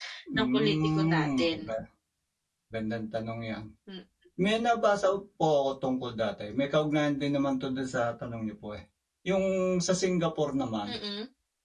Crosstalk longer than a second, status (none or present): present